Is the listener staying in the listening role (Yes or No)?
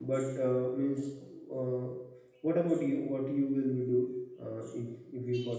No